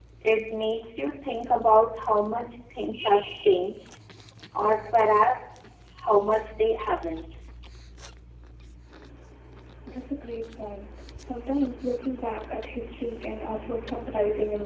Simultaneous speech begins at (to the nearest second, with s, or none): none